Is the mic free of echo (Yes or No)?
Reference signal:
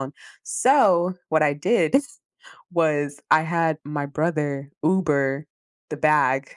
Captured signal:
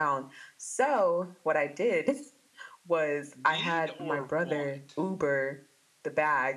No